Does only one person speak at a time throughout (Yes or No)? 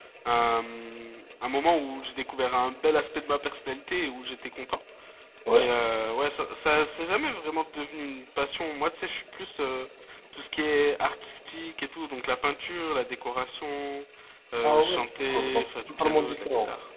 No